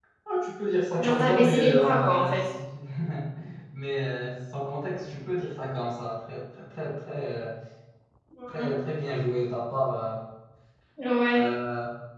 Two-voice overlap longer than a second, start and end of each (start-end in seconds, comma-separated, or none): 1.0-2.4